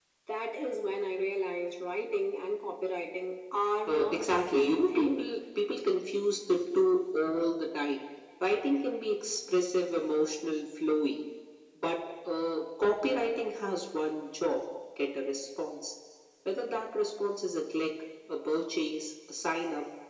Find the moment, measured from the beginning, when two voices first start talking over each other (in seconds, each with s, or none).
3.9 s